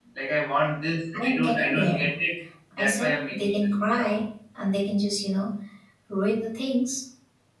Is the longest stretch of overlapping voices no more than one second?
No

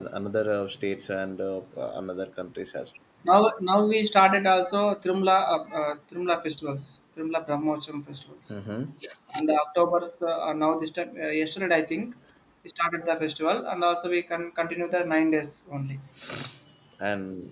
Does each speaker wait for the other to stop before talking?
Yes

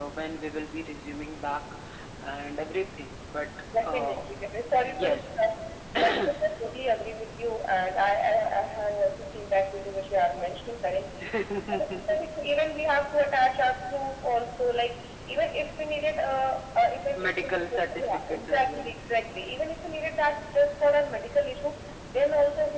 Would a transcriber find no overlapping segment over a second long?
No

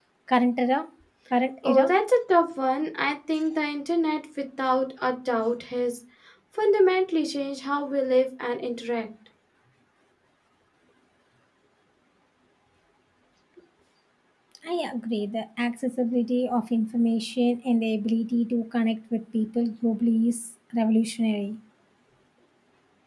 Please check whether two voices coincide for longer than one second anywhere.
No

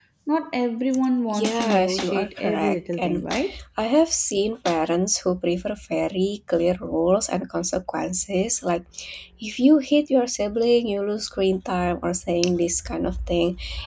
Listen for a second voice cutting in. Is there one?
Yes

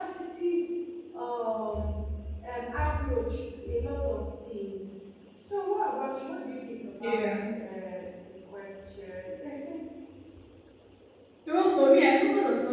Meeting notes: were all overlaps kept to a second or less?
Yes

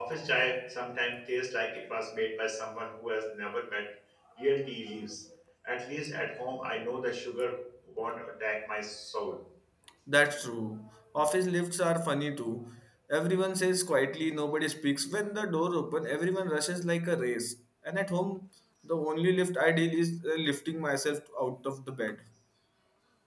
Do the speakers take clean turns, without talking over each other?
Yes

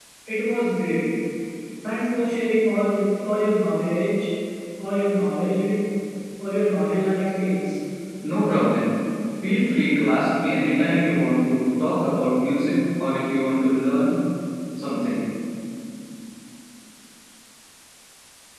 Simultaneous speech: No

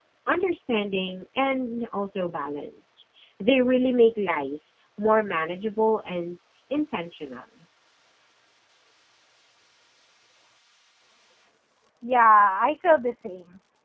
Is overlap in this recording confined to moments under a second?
Yes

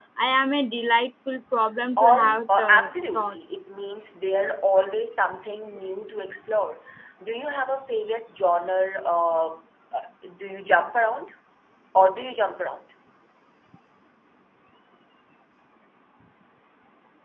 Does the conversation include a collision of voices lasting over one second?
Yes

